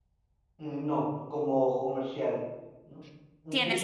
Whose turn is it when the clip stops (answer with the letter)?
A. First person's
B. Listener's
B